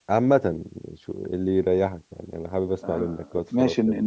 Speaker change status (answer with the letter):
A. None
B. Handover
B